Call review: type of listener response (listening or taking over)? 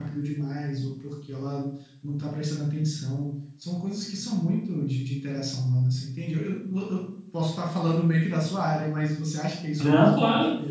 taking over